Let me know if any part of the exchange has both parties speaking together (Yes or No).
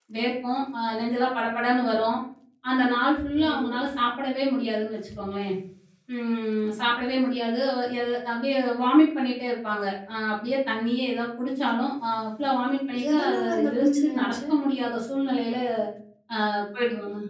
Yes